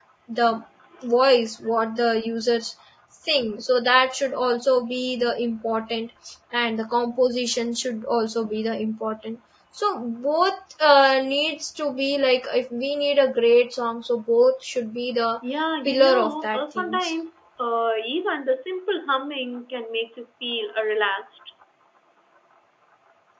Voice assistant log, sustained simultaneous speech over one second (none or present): present